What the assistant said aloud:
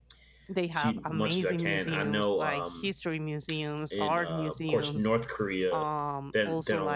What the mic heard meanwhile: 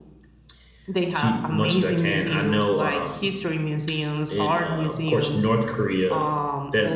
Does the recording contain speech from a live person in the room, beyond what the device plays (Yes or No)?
No